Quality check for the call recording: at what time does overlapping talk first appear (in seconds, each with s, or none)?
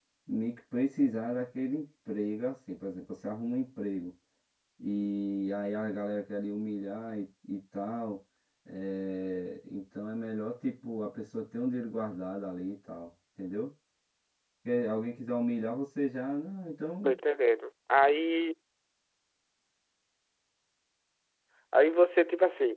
none